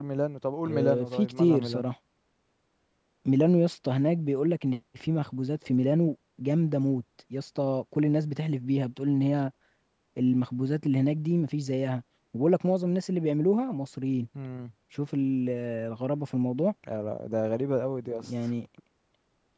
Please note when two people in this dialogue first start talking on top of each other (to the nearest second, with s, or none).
1 s